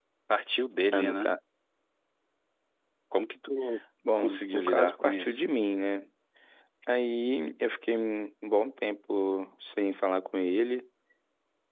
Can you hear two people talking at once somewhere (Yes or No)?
Yes